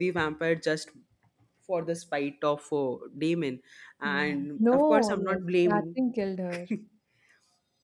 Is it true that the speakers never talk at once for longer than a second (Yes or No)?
No